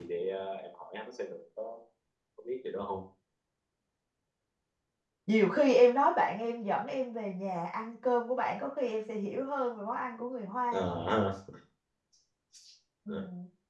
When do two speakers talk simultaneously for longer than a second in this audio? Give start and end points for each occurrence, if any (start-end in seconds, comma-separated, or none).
none